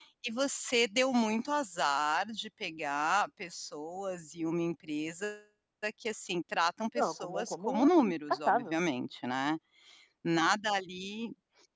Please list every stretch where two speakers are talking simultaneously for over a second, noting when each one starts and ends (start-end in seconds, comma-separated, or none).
7.0-8.8